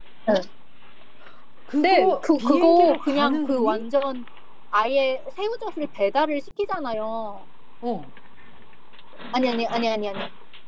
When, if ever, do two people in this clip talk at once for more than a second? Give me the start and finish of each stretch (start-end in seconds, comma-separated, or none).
1.8-3.8